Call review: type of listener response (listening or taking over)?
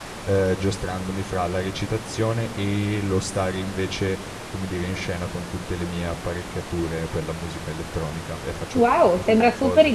taking over